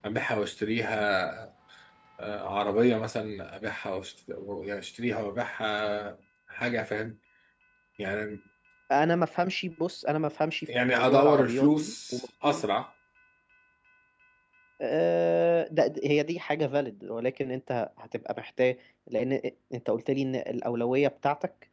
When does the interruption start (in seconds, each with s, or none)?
10.7 s